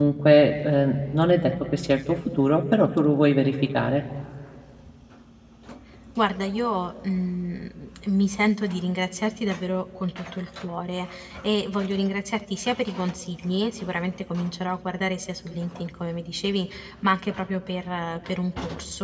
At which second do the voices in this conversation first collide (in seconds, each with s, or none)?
none